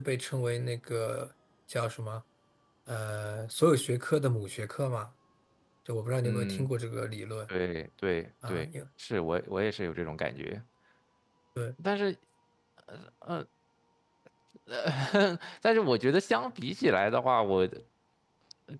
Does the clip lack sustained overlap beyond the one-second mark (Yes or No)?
Yes